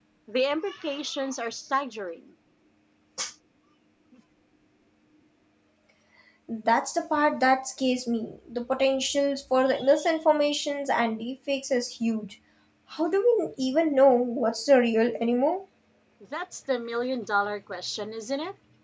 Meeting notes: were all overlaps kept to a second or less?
Yes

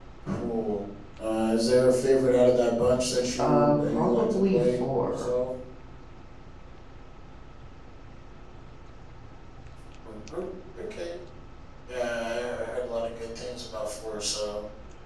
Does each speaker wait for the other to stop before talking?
No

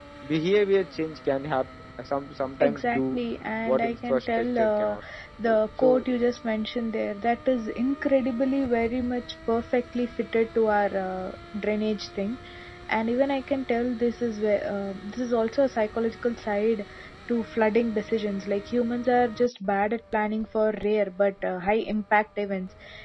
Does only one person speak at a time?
No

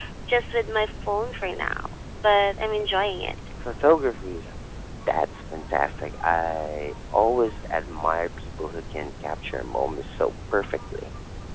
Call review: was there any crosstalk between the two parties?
No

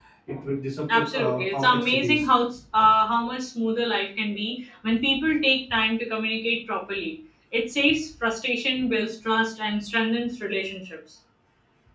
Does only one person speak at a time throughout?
No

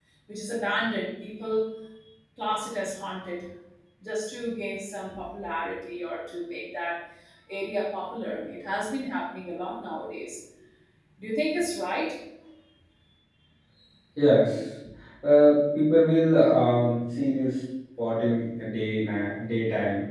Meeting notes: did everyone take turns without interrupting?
Yes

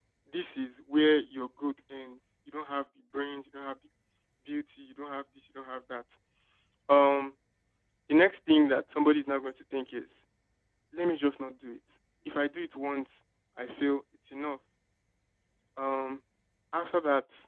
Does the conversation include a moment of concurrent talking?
No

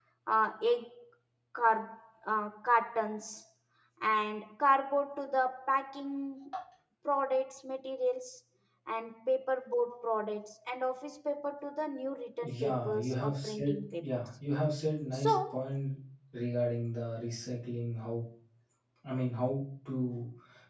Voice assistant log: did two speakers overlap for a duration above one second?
Yes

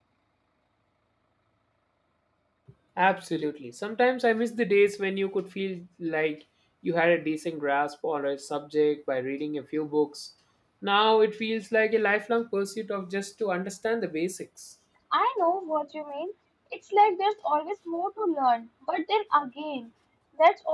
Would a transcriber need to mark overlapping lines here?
No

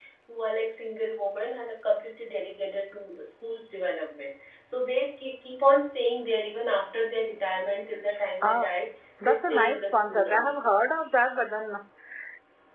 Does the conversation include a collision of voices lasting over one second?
Yes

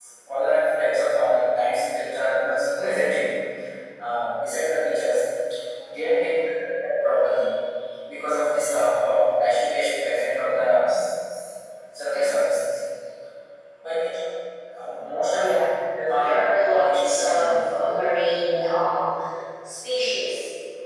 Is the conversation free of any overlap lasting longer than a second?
No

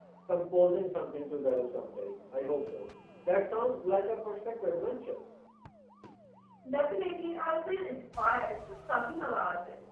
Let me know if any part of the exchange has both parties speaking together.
No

